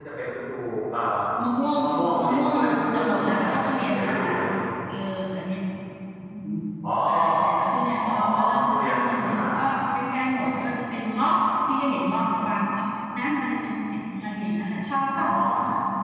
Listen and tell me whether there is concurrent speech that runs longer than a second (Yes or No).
Yes